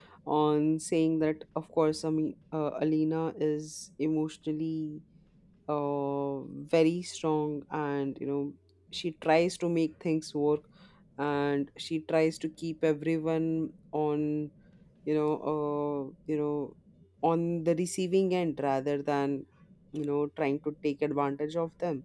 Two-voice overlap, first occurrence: none

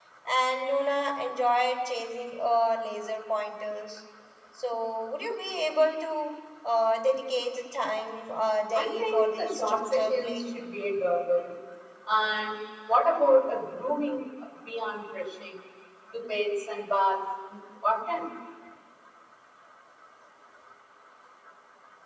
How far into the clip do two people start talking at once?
8.8 s

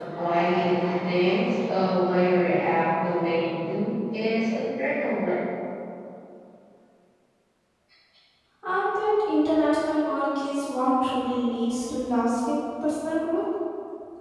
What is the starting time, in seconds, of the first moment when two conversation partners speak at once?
none

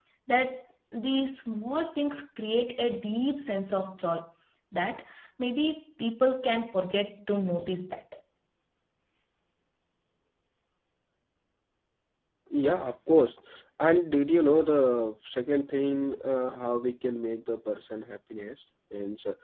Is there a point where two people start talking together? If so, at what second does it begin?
none

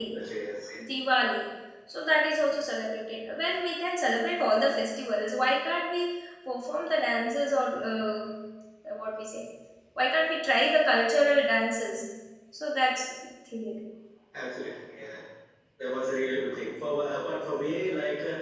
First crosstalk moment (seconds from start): none

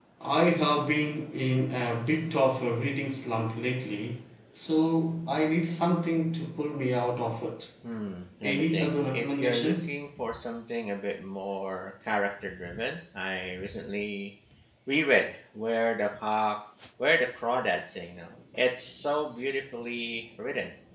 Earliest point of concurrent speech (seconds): 8.4 s

